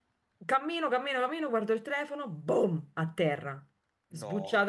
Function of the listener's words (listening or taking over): listening